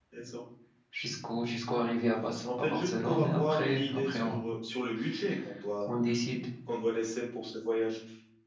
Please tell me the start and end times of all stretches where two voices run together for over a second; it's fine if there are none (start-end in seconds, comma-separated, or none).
2.4-4.4